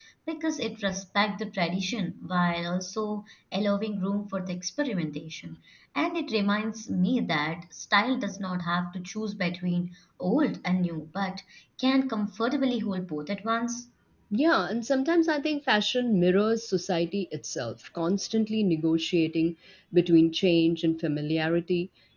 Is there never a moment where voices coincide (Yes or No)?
Yes